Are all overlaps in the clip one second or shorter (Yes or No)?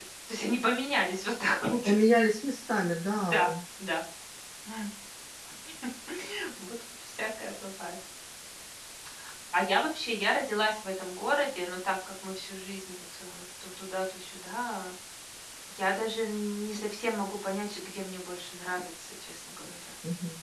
Yes